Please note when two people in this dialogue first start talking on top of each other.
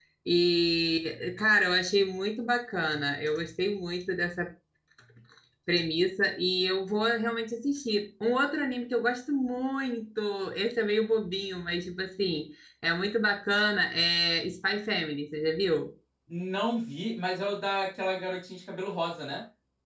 none

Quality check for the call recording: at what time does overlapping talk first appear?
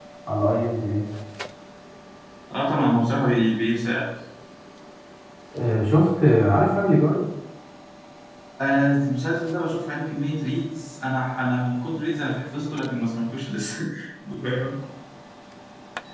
none

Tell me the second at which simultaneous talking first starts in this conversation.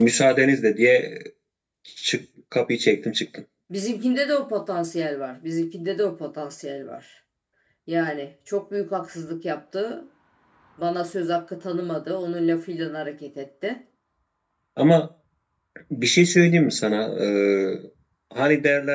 none

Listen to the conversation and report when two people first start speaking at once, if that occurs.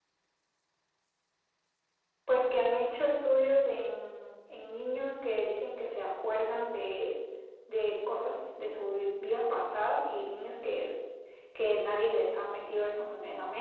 none

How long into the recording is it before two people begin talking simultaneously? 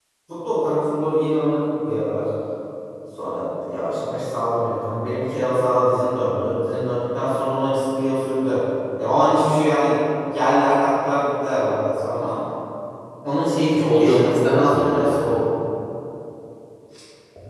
13.7 s

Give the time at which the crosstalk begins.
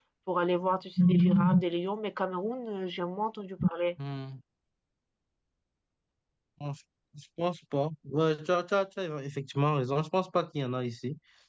none

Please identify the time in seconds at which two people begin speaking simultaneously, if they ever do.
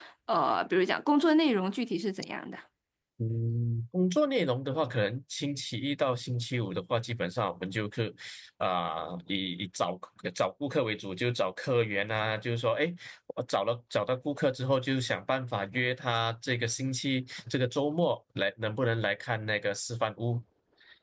none

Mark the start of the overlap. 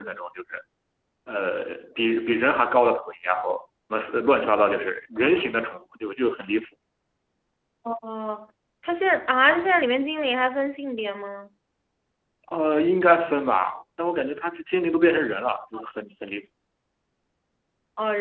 none

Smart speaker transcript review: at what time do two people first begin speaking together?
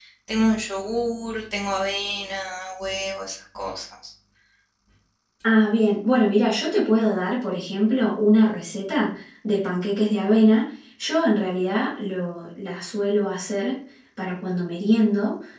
none

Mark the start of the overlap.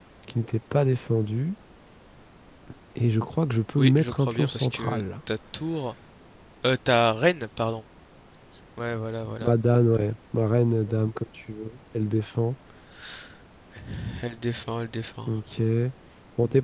3.8 s

